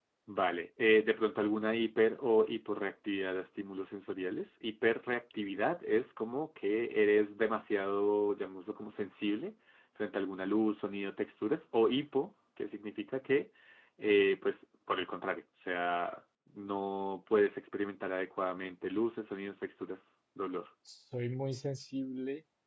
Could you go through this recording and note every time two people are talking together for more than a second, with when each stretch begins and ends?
none

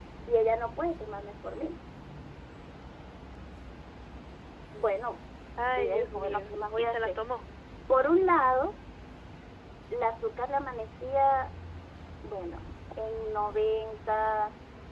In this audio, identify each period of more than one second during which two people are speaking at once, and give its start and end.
5.8-7.2

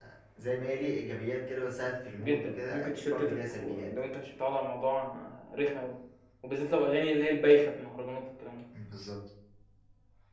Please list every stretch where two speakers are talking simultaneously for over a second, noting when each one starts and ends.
2.2-3.9

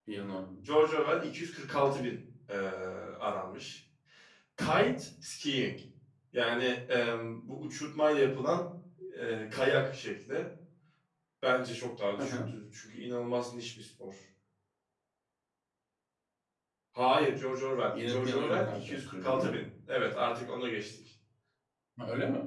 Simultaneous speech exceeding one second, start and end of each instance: 18.1-19.6

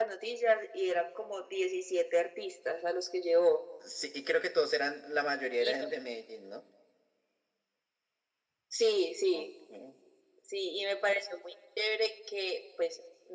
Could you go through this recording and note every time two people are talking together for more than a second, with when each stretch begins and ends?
none

